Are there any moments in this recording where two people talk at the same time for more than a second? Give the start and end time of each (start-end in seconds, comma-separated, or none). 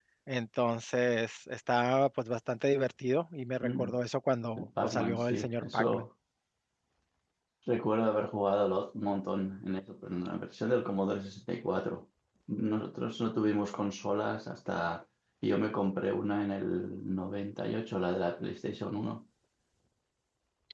4.6-6.1